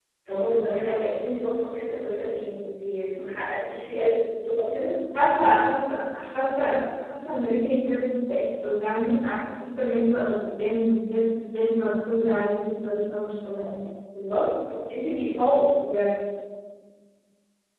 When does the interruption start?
none

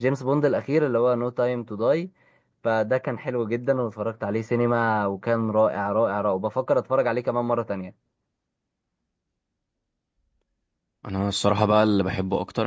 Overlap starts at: none

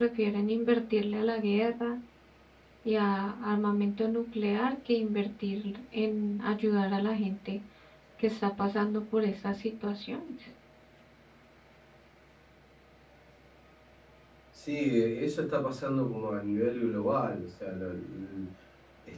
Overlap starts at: none

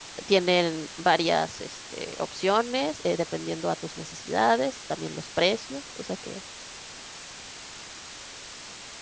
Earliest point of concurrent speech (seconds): none

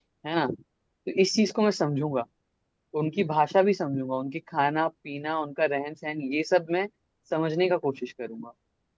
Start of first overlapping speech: none

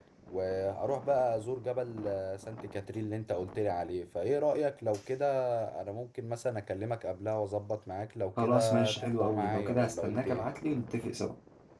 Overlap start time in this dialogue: 8 s

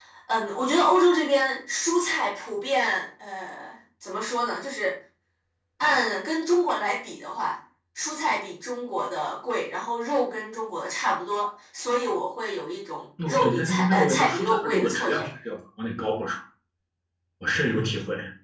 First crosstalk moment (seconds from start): 13 s

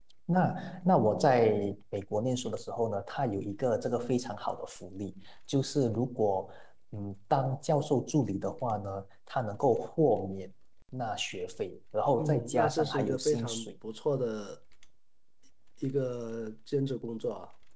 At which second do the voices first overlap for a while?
12 s

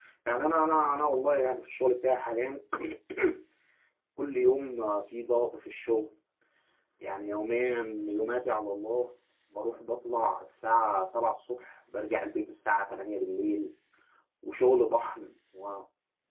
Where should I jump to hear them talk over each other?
none

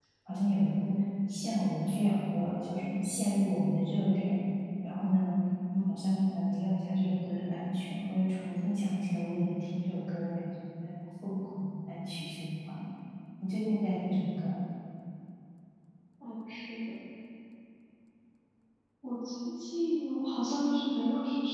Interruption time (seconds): none

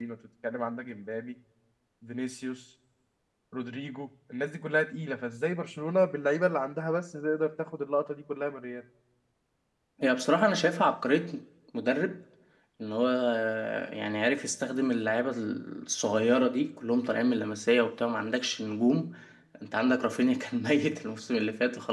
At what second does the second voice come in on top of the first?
none

